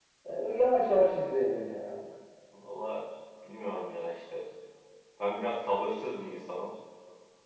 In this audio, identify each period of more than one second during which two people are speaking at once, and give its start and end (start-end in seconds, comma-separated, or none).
none